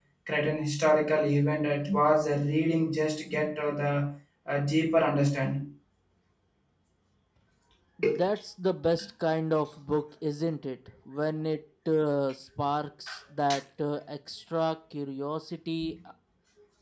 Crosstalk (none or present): none